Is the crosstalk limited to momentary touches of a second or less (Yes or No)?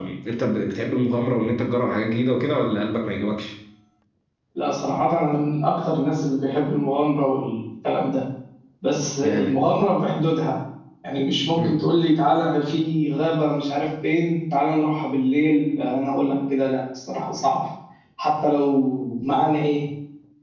Yes